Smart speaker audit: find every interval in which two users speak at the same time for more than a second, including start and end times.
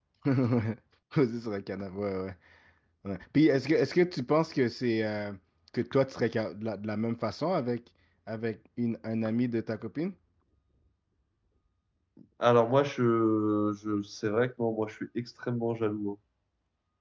none

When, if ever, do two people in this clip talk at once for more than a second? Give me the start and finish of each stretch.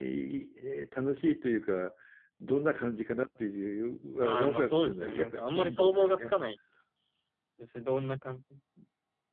4.2-6.3

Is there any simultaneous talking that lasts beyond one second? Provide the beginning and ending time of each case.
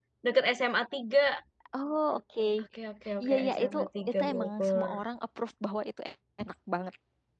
3.2-4.9

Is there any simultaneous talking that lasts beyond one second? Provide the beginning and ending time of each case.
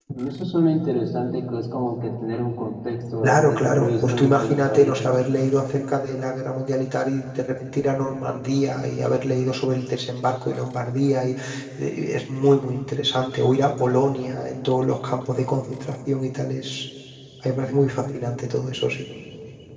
3.2-5.0

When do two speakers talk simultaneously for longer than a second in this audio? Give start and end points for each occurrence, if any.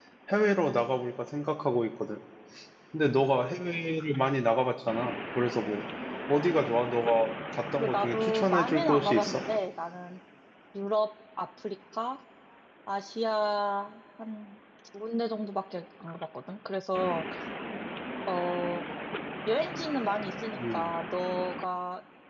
7.8-9.4

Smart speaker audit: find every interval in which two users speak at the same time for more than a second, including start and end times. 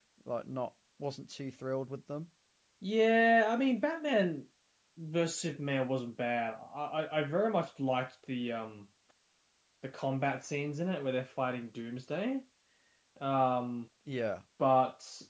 none

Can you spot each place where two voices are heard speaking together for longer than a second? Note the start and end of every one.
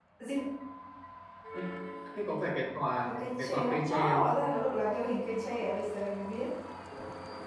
3.1-4.3

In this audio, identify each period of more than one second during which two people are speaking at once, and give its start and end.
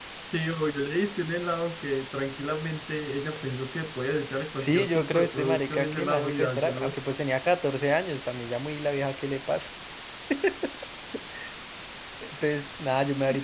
4.6-7.0

